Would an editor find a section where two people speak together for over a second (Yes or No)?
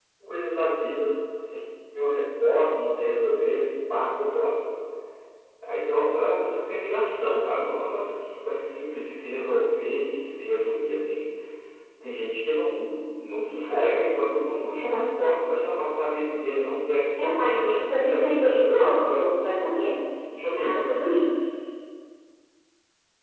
Yes